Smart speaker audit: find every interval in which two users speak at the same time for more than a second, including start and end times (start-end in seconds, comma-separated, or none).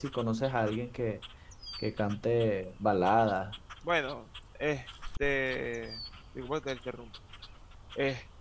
none